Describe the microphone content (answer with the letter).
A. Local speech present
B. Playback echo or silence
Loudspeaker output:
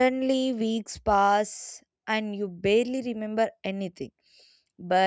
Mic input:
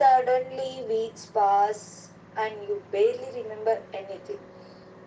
B